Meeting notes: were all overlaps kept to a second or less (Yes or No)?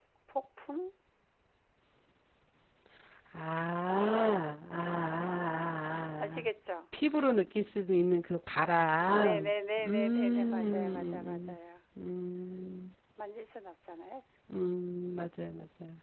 No